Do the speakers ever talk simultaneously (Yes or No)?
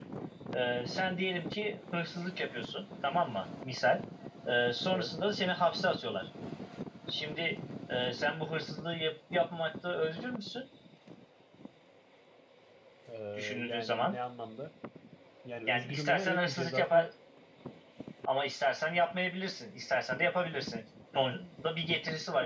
Yes